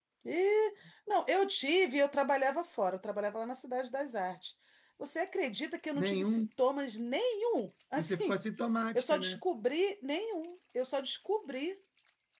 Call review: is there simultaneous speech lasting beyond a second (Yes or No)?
No